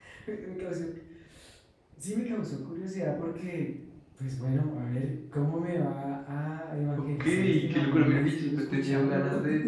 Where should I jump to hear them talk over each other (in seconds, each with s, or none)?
7.0 s